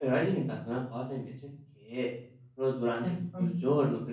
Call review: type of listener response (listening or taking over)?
listening